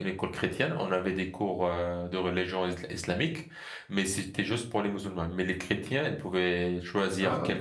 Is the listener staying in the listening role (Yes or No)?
Yes